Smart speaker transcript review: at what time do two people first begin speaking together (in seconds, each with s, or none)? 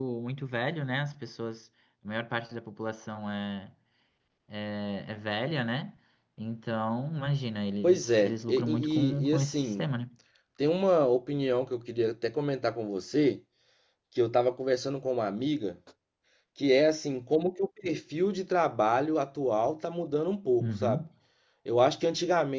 7.8 s